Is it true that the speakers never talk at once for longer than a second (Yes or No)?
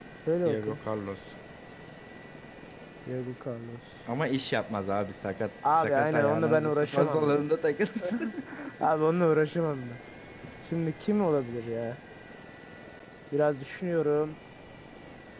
No